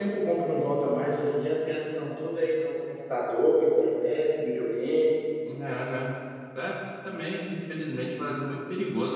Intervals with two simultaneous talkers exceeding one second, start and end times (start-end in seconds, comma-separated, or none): none